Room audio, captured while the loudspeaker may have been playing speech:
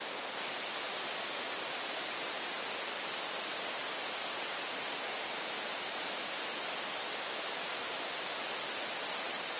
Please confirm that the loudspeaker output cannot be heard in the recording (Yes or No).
Yes